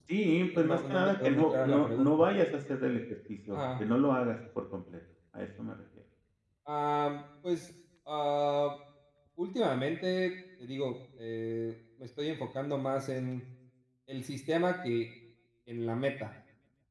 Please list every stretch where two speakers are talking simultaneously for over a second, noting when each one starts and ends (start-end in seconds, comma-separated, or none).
0.5-2.1